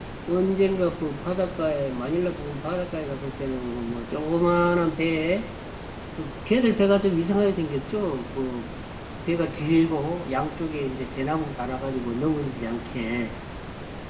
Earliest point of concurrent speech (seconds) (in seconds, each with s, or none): none